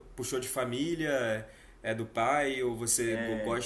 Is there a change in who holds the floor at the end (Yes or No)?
No